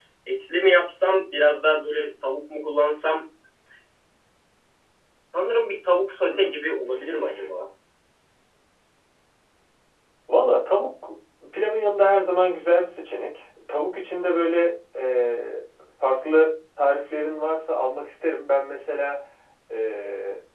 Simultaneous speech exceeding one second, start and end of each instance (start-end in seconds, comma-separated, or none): none